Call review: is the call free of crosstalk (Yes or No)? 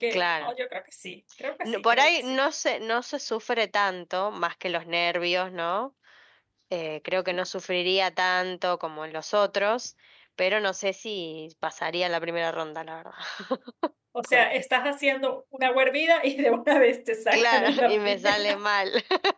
No